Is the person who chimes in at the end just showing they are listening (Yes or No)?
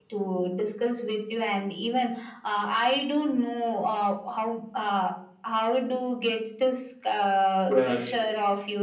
Yes